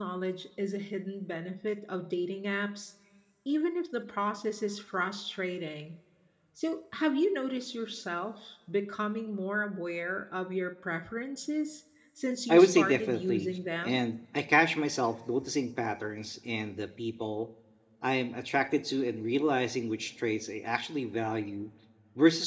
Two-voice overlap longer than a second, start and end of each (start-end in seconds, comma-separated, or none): 12.5-14.0